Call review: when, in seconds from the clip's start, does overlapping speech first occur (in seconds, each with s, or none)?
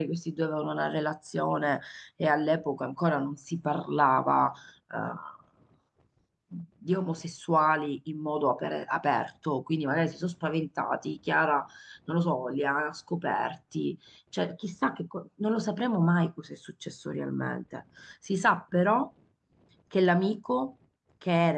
none